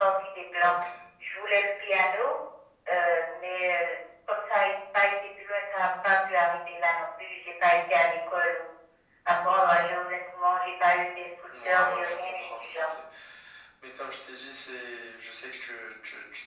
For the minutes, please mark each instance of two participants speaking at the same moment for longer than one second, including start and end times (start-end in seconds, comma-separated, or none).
11.6-12.9